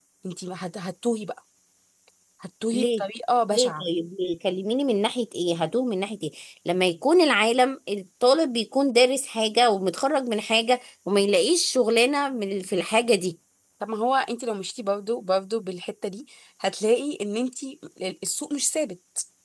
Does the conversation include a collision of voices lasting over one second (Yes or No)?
No